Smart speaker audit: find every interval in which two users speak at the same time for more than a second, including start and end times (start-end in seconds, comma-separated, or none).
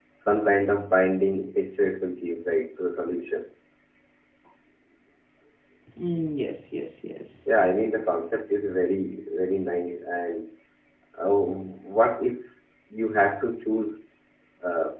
none